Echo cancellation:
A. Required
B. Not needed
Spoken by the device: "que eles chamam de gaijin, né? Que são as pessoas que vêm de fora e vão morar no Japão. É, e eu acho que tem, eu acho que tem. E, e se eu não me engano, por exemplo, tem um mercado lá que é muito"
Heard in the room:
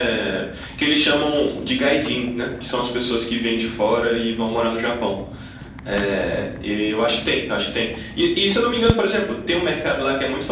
A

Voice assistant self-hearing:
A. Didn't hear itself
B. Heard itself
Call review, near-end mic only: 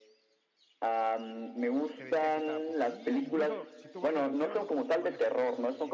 B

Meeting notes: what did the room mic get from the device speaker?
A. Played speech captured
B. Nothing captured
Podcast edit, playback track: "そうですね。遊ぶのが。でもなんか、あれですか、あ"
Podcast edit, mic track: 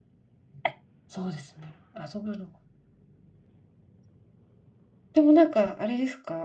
A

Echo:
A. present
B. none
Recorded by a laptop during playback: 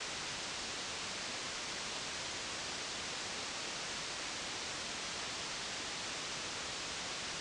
B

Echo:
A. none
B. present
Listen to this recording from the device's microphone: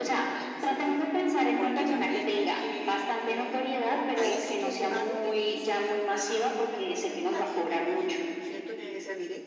B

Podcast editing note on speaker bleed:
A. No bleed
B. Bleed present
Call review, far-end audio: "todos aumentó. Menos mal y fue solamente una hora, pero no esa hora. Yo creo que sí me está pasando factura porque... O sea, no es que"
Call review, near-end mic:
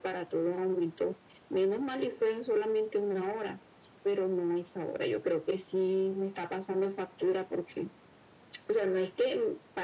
B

